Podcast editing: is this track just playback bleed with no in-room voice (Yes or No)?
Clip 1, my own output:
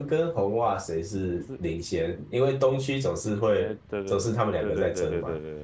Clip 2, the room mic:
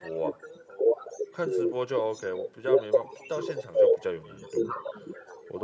No